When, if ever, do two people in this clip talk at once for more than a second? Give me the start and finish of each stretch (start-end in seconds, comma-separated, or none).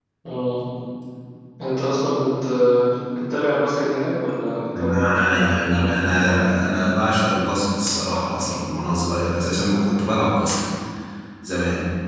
4.8-6.8